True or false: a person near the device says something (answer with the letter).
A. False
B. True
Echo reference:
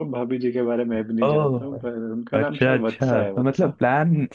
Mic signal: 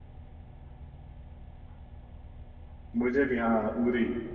B